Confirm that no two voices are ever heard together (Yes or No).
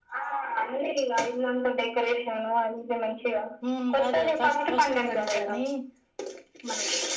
No